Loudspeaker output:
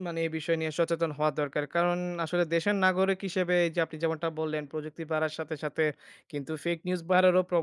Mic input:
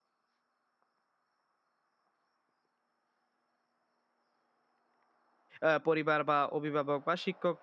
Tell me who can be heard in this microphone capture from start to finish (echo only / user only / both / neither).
user only